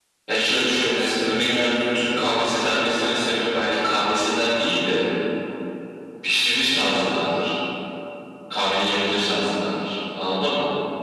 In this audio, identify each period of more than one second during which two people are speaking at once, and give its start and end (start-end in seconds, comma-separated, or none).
0.5-2.4